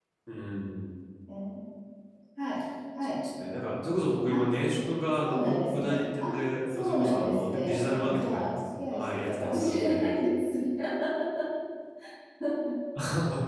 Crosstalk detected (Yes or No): Yes